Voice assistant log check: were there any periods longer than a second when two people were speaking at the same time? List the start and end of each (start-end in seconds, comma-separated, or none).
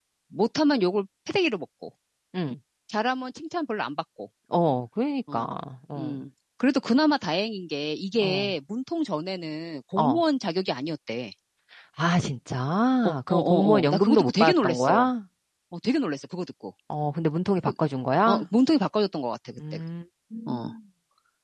13.1-15.1